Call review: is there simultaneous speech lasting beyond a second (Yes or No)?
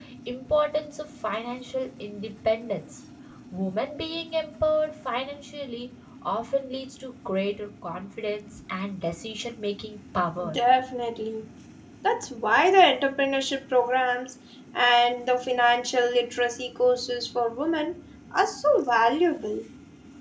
No